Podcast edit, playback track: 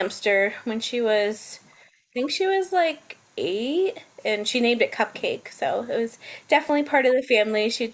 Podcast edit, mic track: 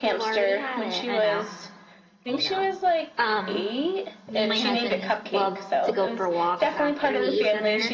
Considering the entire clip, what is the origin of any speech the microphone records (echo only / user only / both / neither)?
both